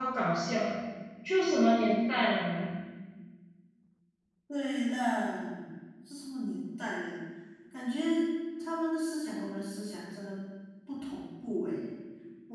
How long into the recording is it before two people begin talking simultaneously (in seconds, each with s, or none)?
none